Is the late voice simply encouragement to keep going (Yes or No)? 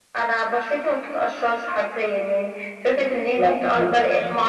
Yes